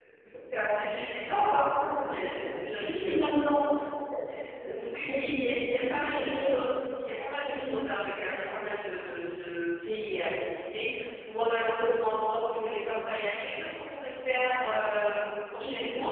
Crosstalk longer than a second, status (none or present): present